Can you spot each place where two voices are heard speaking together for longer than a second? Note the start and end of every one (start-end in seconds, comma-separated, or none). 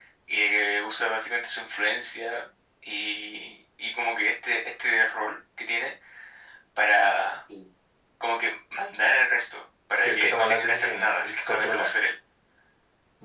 9.9-11.9